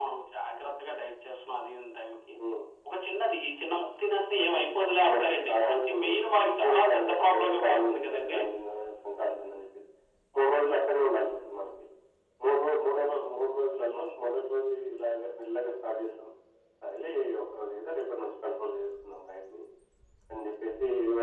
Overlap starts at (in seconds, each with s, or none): 4.4 s